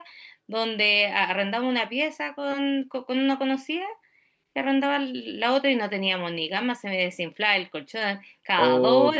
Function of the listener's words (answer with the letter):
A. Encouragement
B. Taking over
B